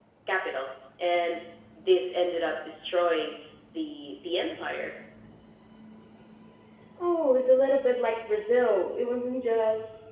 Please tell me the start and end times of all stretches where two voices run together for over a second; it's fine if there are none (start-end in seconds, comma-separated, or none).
none